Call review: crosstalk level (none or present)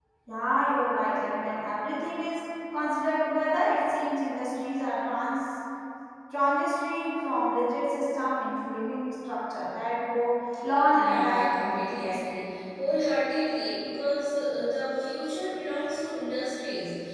present